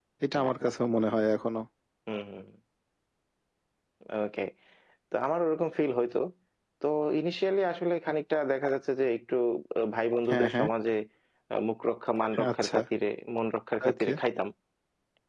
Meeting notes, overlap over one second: none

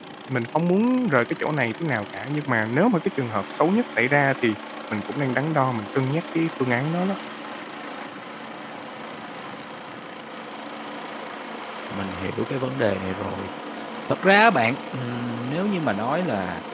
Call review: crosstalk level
none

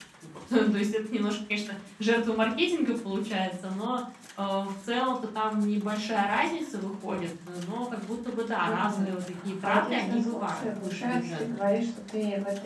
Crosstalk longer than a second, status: present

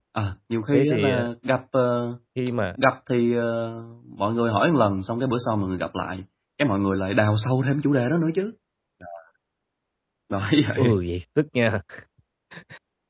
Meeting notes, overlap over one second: none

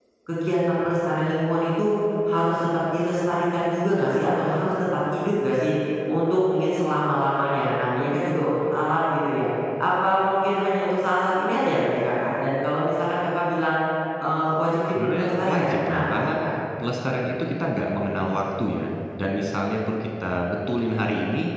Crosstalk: present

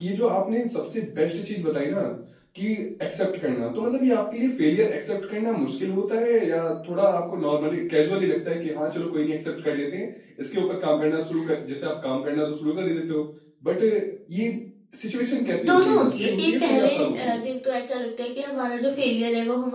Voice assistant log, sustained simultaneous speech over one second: present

